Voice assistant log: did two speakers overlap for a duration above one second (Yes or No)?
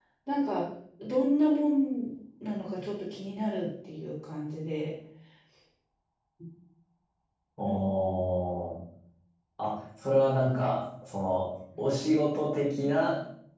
No